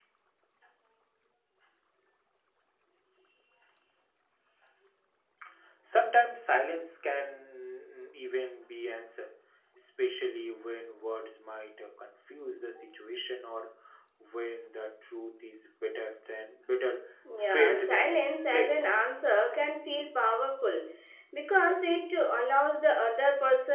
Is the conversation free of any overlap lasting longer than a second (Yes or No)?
No